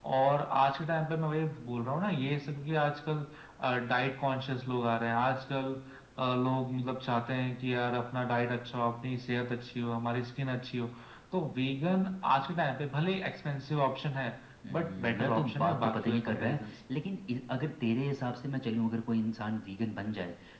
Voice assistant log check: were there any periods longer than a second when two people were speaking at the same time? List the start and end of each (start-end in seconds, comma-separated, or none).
14.7-16.6